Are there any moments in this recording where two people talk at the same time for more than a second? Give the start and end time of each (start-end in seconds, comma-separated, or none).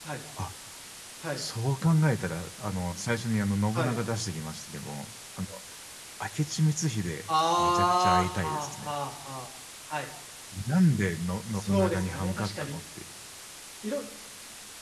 7.6-8.9, 11.5-12.8